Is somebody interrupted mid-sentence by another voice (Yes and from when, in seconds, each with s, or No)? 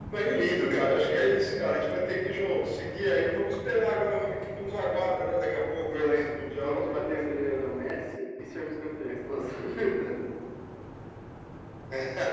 Yes, from 5.9 s